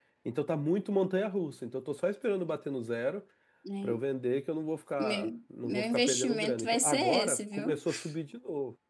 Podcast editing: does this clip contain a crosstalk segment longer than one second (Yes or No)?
Yes